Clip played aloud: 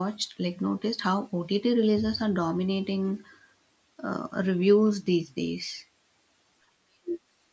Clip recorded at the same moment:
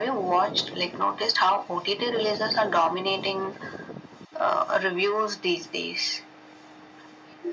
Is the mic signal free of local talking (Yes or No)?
Yes